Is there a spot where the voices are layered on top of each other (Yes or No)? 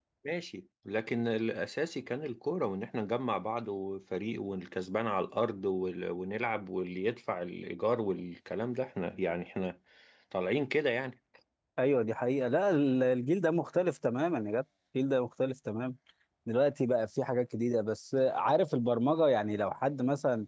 No